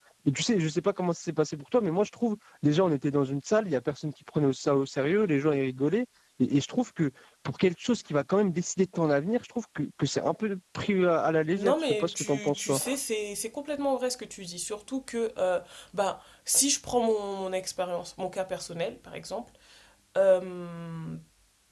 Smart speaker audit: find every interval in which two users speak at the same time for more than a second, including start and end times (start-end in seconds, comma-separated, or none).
11.5-12.8